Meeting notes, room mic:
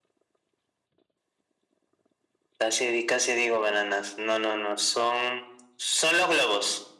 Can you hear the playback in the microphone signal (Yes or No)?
Yes